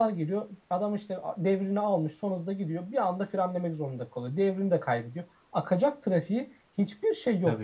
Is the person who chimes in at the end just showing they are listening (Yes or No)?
Yes